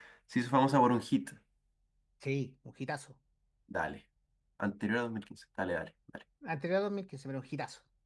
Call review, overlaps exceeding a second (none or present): none